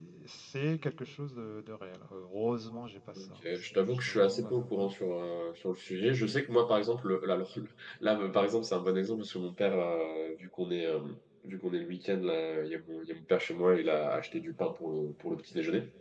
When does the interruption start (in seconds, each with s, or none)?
3.1 s